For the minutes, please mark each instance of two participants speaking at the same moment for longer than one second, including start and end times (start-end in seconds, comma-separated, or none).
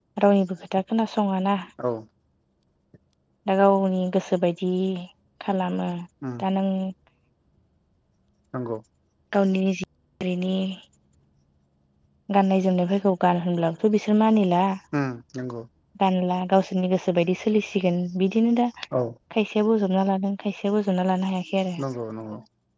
none